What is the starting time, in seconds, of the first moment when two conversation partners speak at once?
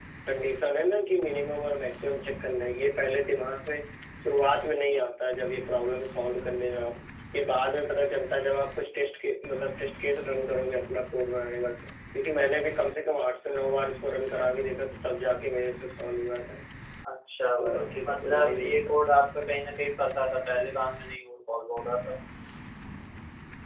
18 s

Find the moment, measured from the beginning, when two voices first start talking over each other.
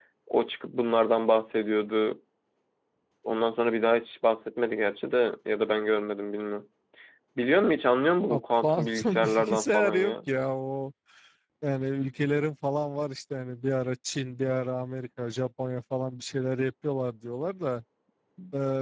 8 s

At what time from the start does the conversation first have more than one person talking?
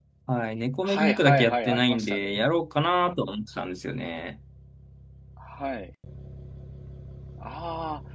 1 s

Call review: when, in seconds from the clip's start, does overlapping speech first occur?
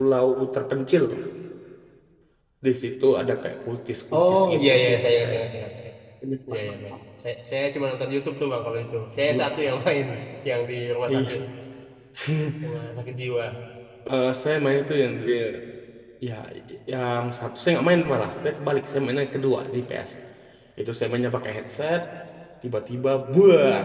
4 s

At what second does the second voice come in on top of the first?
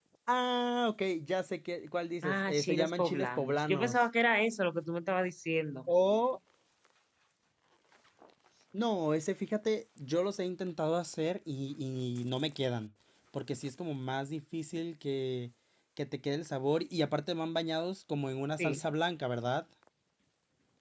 2 s

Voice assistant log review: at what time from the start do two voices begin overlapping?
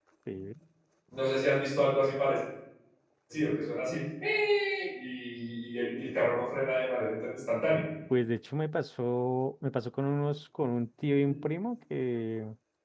none

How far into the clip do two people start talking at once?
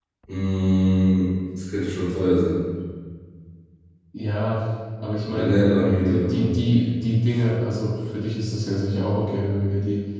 5 s

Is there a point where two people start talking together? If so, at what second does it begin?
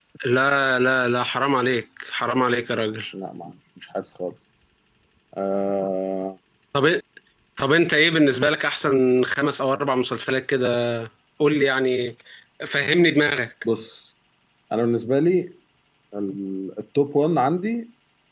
none

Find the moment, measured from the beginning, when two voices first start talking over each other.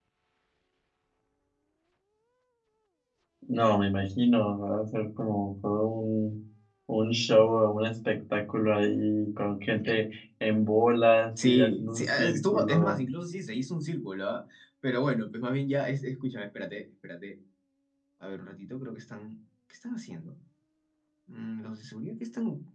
11 s

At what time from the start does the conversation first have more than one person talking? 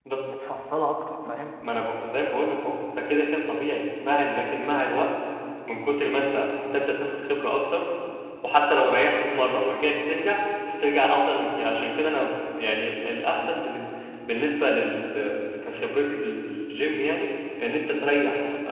none

